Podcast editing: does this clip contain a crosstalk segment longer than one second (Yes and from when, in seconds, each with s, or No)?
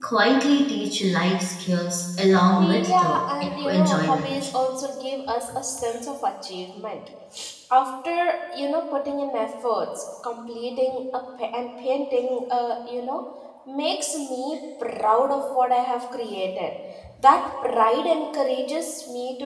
Yes, from 2.6 s